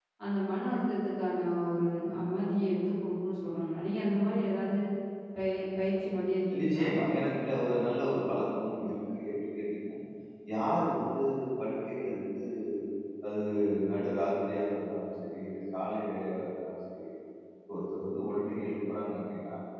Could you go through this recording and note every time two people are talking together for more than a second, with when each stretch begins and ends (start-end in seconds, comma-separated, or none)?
none